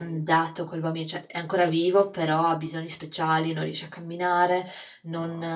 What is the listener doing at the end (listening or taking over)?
listening